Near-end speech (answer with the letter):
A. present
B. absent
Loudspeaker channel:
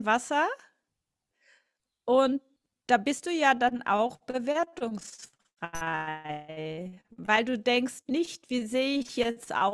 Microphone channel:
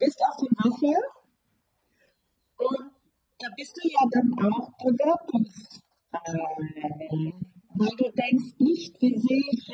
B